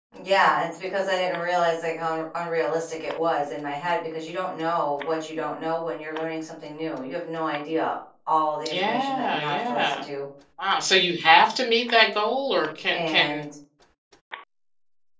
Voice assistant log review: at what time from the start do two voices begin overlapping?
8.7 s

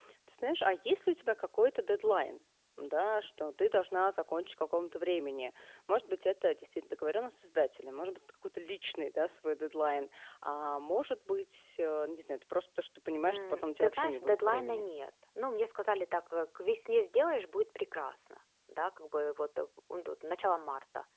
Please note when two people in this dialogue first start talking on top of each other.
13.3 s

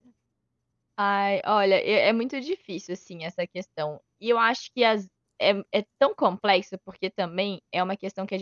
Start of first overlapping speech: none

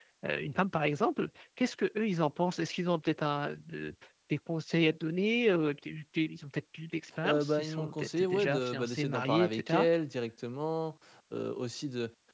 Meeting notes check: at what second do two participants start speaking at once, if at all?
7.2 s

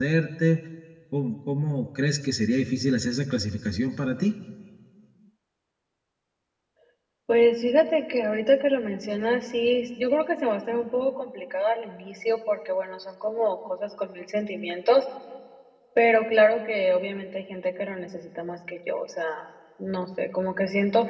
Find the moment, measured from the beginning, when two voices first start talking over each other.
none

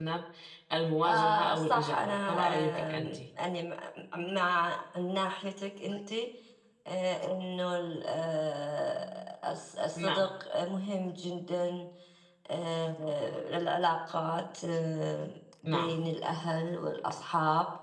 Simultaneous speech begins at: 1.0 s

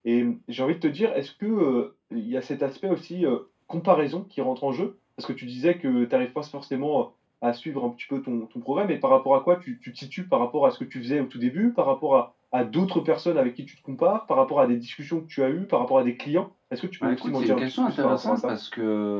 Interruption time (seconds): 17.0 s

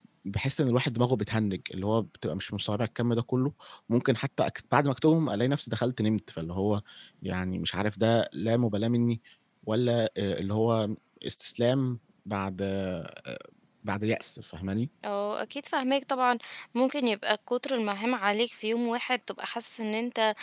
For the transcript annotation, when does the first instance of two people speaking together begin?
none

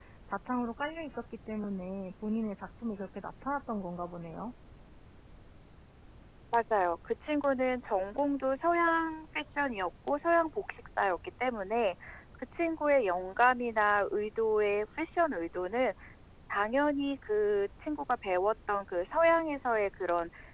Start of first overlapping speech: none

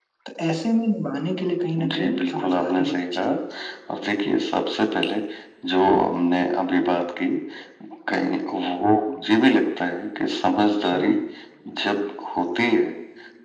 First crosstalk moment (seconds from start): 1.8 s

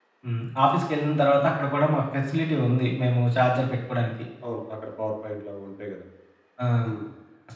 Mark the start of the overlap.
none

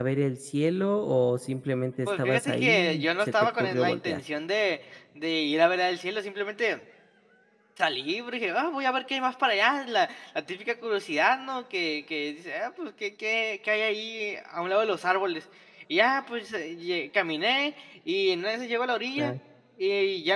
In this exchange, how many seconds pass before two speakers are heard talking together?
2.1 s

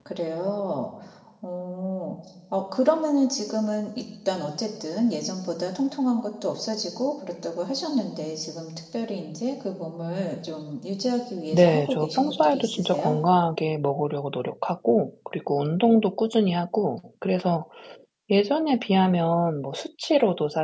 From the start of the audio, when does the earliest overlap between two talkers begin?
11.5 s

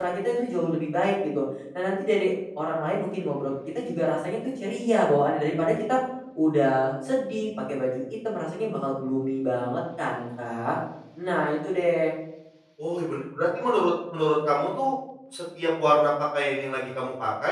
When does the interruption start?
none

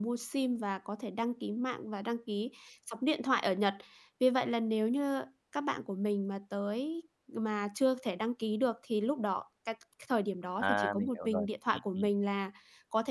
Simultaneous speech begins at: 10.6 s

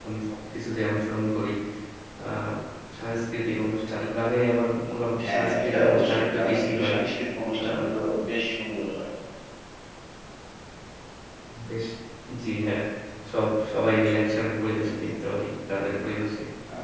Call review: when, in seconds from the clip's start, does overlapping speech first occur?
5.2 s

